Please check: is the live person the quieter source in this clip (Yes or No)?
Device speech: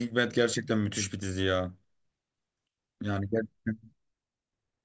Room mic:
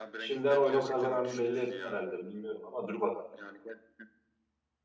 No